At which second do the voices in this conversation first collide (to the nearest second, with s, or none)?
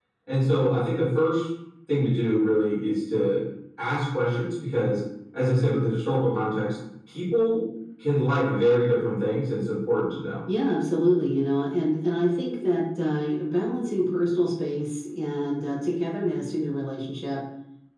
none